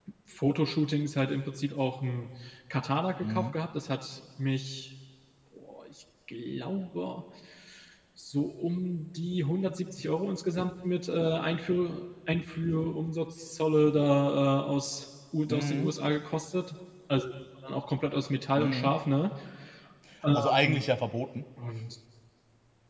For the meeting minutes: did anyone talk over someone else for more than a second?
No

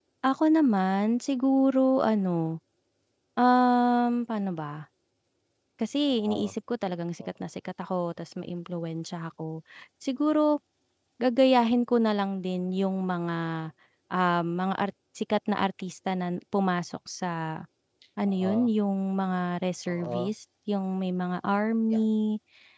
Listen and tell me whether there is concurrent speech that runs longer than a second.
No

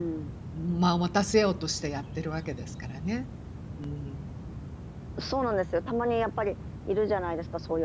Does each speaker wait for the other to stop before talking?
Yes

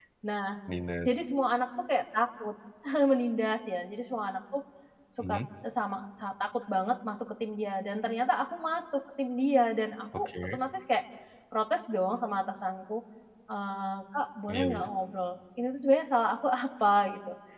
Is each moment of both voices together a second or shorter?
Yes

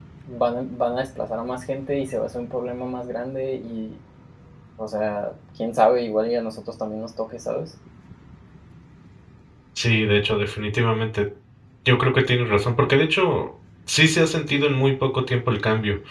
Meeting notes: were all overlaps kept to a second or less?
Yes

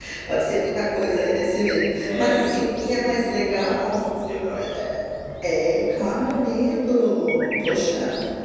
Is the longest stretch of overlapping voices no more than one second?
No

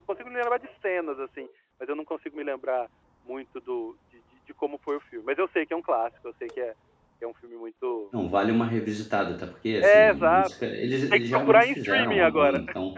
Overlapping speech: Yes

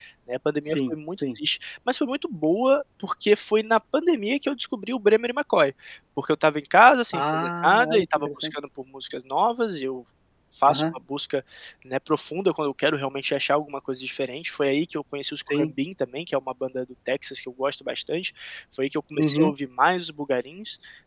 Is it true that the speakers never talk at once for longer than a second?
No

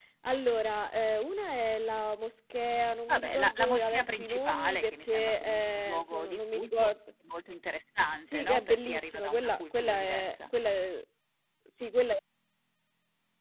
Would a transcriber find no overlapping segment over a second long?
No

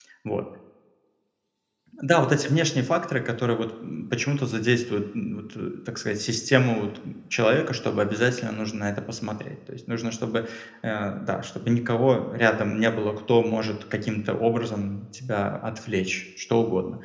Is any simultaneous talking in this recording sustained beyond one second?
No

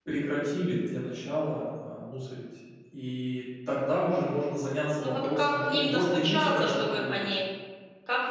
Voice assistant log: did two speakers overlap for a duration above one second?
Yes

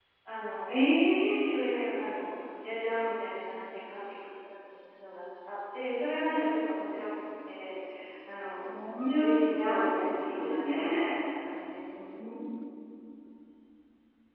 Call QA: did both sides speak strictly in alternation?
No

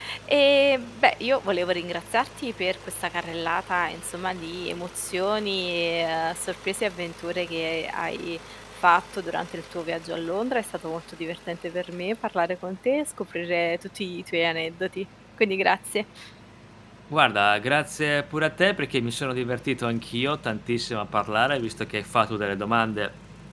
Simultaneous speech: No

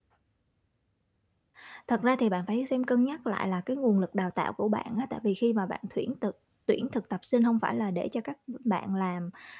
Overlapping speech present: No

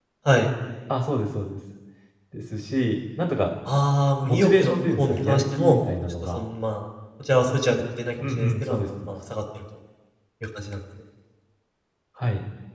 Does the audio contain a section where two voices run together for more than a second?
Yes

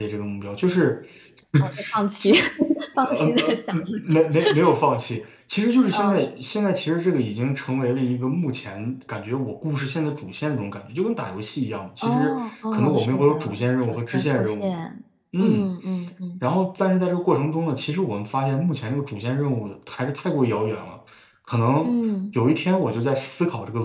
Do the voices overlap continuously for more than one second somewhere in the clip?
Yes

